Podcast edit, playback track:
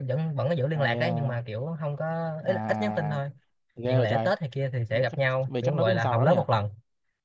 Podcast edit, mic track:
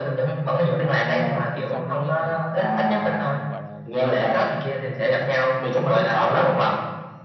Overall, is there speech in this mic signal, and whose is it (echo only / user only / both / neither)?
both